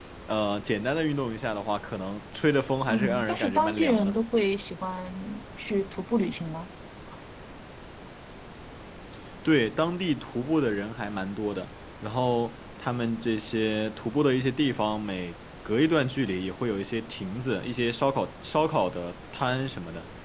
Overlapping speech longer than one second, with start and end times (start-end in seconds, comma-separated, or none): 2.9-4.2